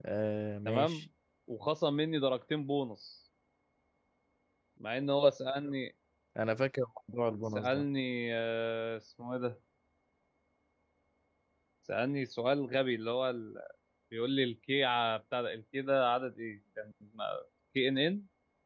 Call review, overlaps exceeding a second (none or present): none